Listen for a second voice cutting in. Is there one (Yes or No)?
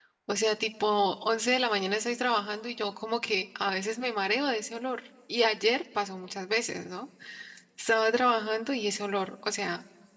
No